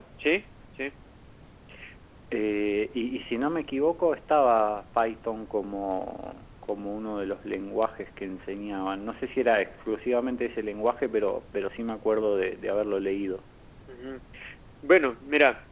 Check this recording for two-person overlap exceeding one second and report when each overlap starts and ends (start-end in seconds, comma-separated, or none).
none